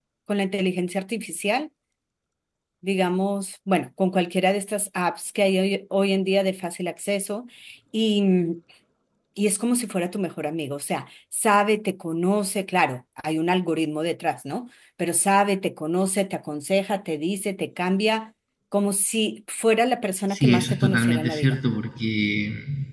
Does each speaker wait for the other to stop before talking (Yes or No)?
No